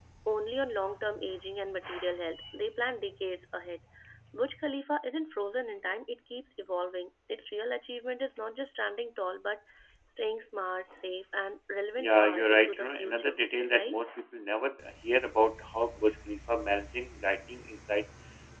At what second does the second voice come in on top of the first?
12.0 s

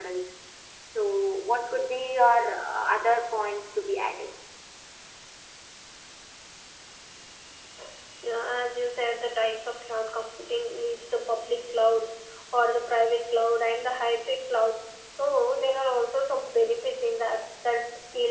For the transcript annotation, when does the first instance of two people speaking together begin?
none

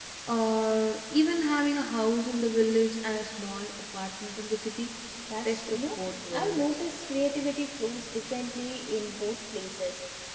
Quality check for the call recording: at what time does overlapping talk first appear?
5.5 s

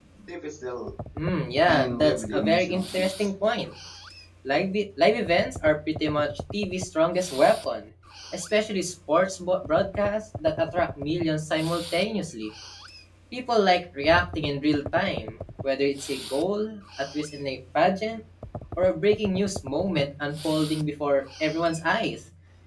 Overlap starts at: 1.6 s

